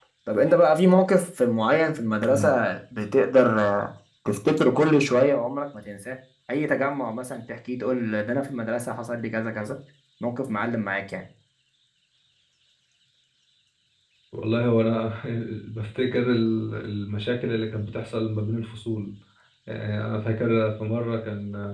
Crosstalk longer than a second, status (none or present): none